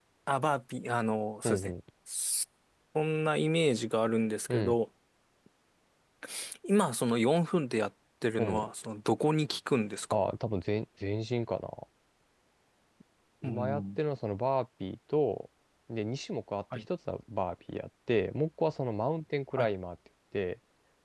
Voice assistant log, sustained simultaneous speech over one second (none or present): none